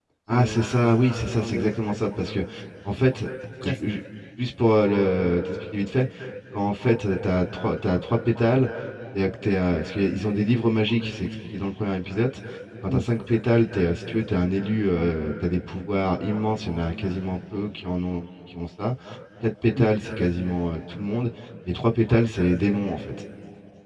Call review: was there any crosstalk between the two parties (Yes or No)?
Yes